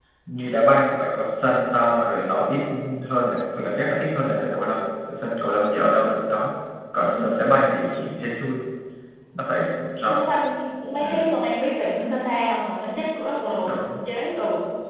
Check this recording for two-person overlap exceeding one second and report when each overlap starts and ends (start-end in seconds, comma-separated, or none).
none